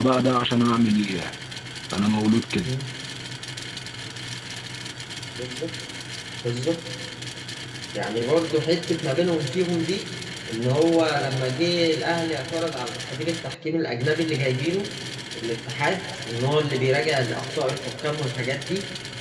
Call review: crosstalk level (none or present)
none